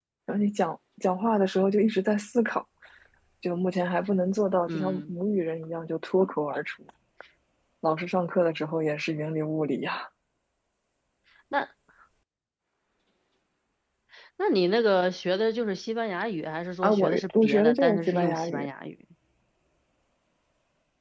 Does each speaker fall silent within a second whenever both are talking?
No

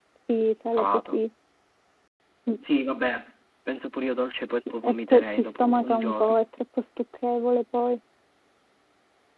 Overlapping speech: Yes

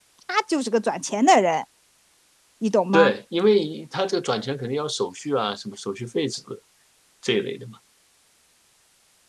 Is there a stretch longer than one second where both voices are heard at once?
No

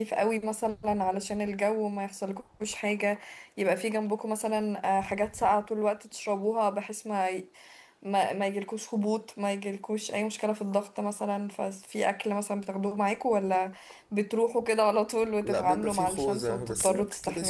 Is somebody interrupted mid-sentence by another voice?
Yes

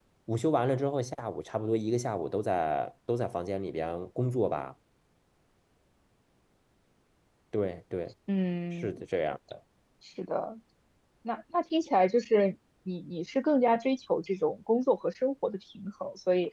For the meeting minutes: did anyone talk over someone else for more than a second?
No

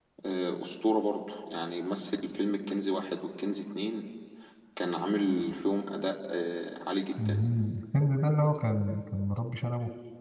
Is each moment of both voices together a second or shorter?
Yes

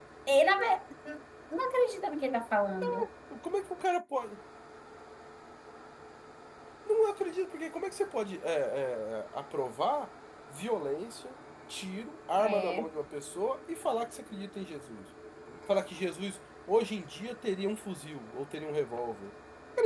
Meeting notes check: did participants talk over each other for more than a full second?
No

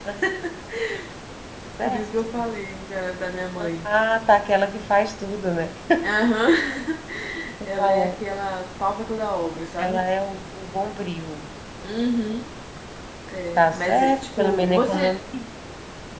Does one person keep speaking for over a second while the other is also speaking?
Yes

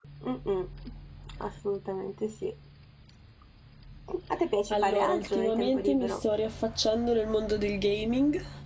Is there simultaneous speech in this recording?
Yes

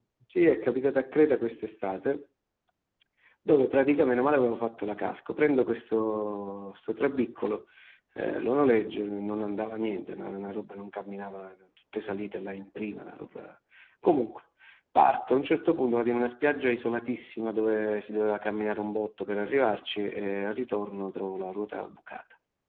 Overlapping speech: No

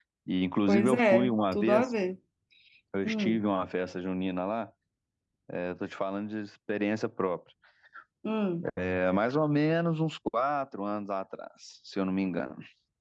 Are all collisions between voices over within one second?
No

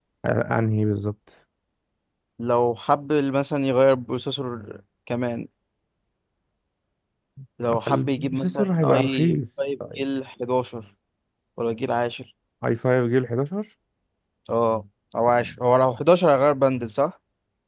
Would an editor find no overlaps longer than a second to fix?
No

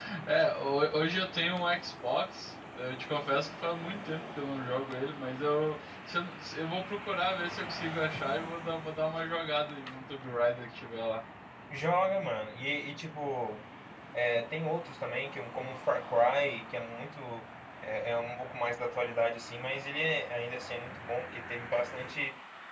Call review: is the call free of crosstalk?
Yes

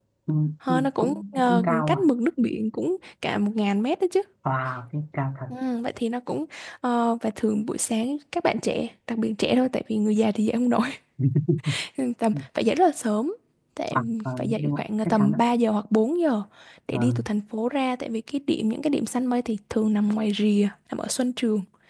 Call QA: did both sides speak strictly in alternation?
No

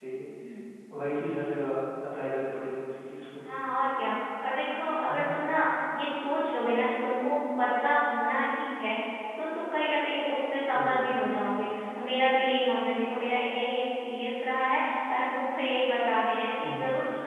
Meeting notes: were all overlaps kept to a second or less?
Yes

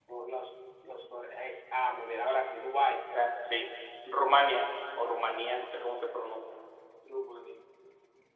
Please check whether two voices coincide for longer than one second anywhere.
No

